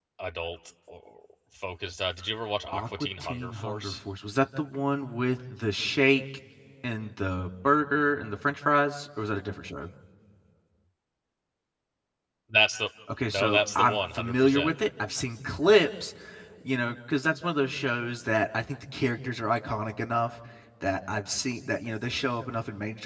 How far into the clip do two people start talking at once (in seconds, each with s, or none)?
2.7 s